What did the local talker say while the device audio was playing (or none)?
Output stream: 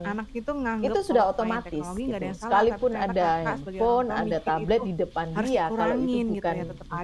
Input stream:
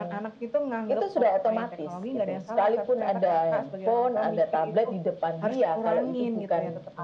none